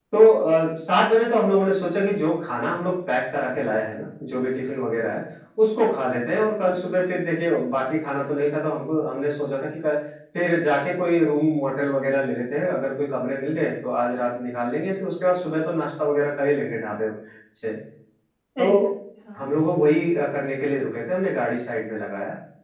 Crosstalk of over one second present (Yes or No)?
No